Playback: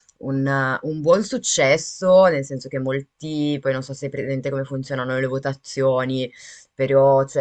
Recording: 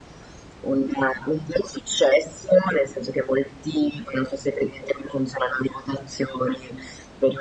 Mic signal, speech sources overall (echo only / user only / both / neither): echo only